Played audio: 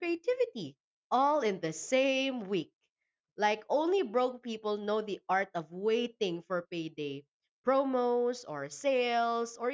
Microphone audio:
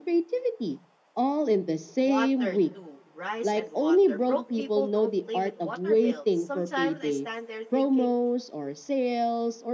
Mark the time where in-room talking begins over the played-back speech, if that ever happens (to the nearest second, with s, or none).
2 s